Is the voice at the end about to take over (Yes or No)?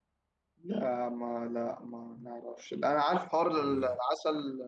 No